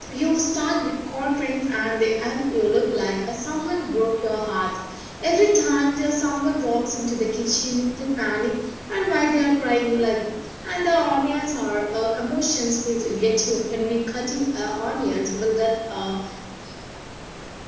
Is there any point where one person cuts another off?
No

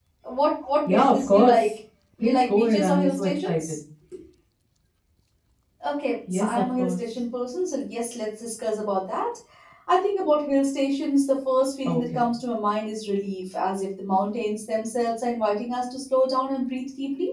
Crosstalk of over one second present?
Yes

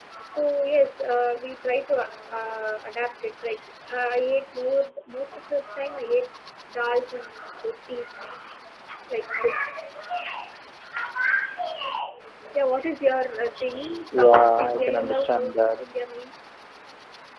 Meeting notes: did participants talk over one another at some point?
Yes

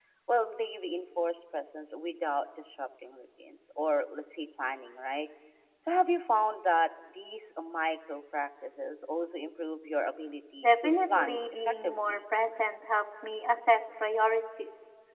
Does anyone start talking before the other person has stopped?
Yes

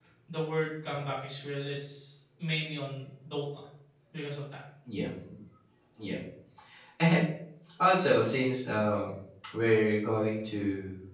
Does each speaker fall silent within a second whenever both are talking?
Yes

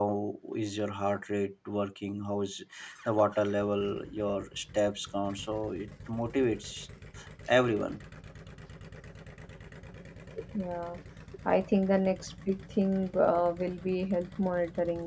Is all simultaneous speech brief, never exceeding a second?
Yes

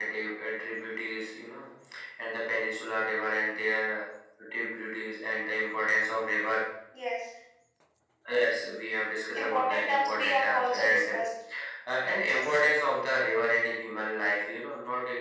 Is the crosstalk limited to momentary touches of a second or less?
No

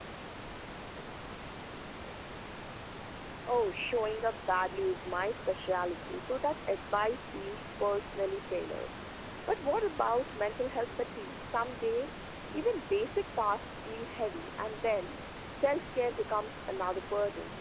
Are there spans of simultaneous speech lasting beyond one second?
No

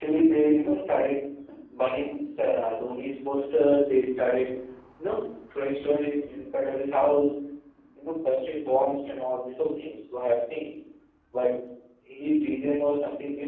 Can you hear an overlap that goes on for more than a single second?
No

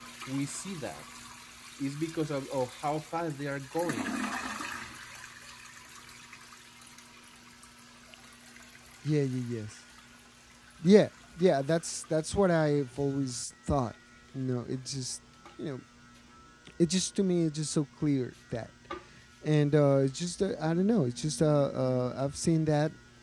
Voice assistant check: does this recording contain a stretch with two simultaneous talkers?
No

